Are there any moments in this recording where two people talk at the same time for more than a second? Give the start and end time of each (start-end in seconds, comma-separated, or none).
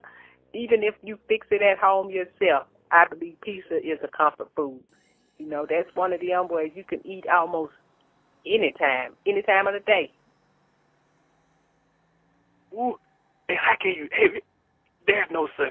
none